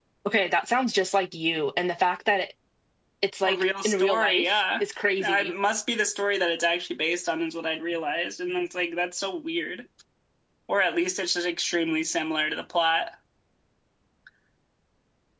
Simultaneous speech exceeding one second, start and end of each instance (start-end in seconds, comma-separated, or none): 3.4-4.8